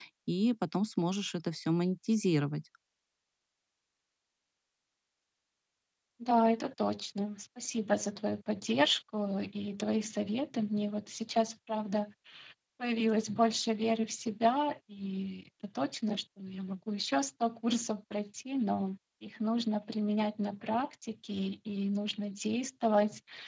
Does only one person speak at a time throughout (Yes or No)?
Yes